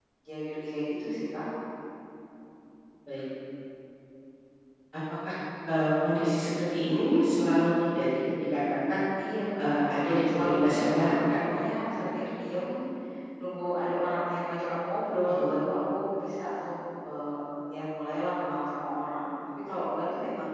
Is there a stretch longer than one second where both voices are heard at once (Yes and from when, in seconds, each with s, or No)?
Yes, from 9.6 s